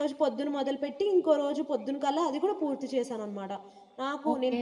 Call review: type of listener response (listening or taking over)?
listening